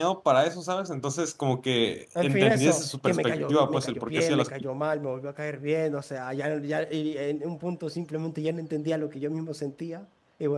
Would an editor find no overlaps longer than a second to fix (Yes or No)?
No